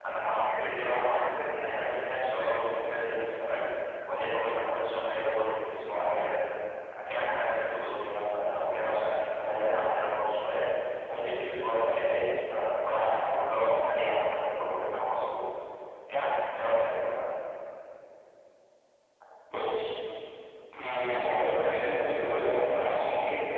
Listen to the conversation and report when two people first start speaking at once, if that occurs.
none

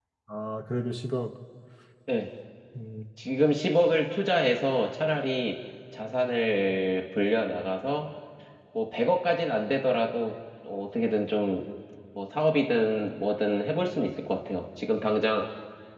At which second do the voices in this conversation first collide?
none

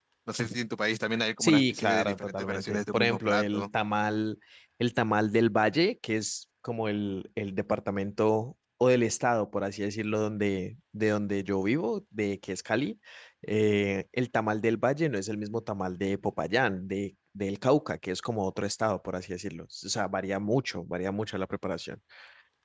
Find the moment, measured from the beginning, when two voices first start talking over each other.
1.4 s

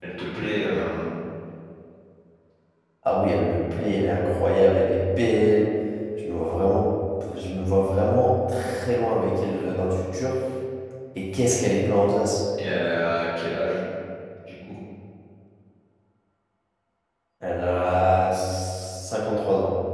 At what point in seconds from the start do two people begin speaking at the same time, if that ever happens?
none

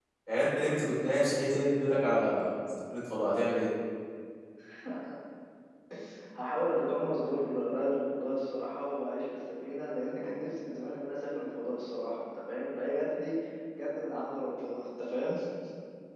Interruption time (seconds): none

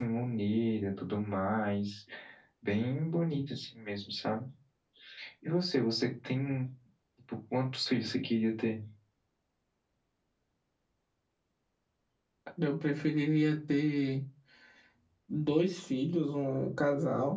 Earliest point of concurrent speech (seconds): none

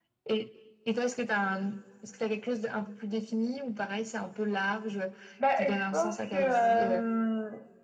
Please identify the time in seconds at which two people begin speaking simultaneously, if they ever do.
5.6 s

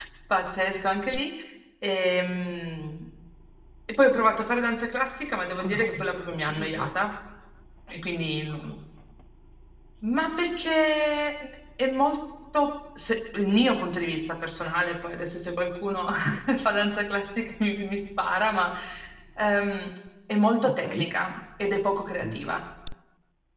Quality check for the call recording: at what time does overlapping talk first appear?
5.6 s

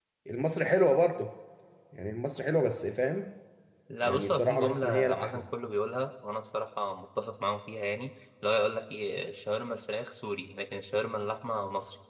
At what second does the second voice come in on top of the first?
4.0 s

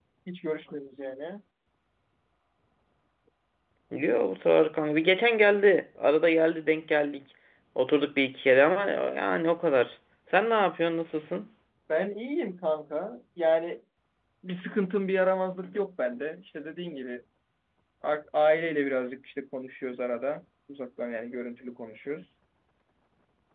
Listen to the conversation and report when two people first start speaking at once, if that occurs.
none

